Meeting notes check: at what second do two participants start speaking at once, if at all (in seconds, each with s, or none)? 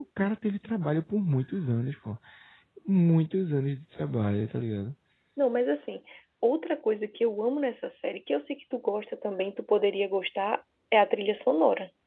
none